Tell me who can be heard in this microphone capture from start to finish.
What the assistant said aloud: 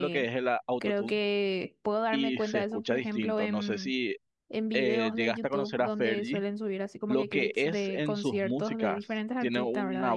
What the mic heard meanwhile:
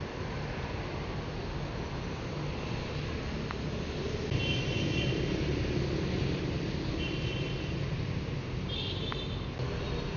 neither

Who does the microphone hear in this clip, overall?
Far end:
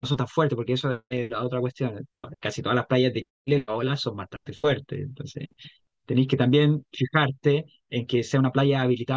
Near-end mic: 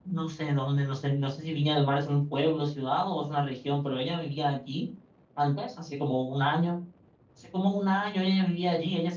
user only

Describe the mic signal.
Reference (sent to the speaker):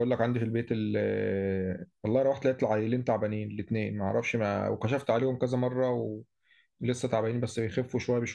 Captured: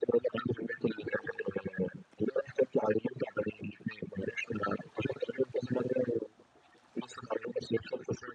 echo only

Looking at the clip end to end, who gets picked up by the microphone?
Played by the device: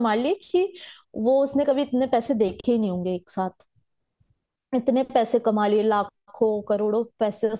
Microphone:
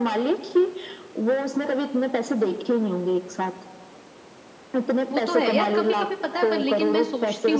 both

